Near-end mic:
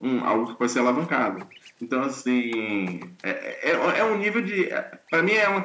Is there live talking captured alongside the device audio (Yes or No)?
No